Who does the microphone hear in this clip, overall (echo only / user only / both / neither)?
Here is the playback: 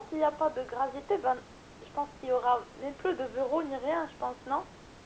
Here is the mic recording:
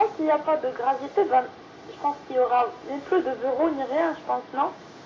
echo only